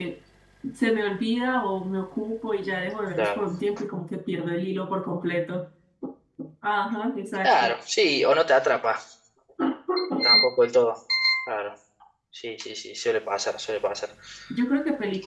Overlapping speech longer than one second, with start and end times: none

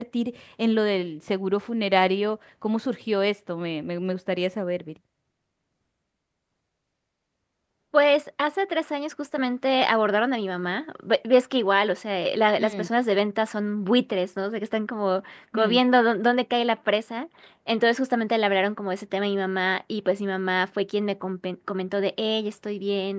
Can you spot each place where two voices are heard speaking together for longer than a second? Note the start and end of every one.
none

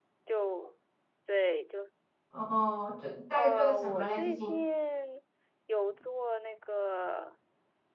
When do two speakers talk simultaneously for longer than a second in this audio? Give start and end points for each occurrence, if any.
3.4-4.6

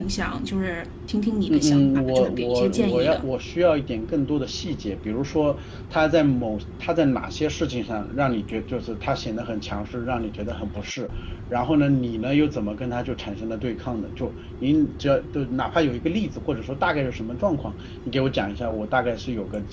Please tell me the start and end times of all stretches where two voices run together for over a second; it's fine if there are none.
1.5-3.3

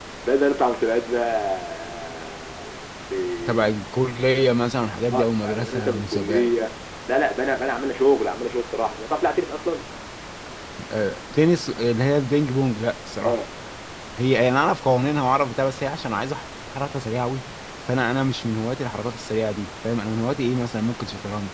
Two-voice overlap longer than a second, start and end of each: 5.1-6.5

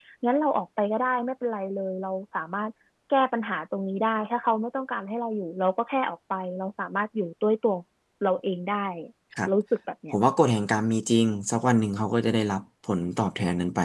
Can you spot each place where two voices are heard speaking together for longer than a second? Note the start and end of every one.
none

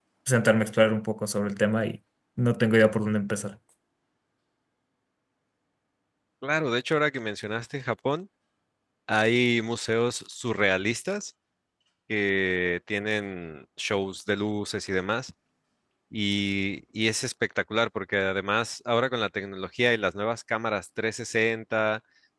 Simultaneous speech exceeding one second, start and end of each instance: none

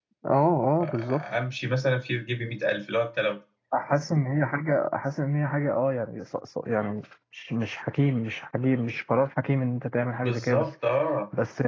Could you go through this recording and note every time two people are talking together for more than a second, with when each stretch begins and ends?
none

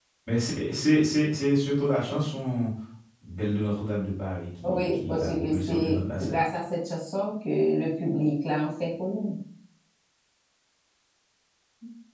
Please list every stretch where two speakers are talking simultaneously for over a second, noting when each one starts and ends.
4.6-6.4

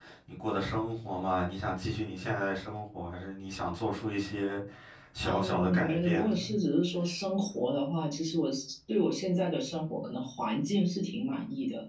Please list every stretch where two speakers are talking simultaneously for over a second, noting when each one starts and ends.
5.2-6.5

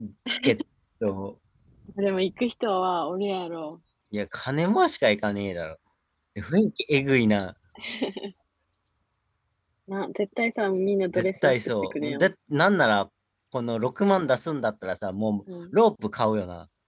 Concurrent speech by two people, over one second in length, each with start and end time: 11.1-12.3

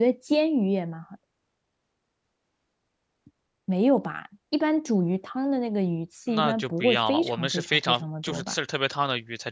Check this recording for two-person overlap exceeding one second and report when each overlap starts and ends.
6.3-8.5

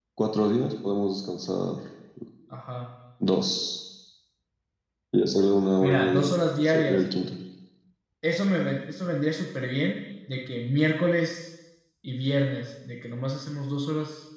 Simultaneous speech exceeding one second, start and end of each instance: 5.8-7.0

